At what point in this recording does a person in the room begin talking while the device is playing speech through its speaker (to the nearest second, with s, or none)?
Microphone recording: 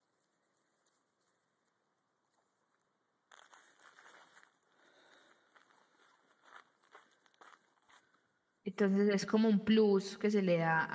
9 s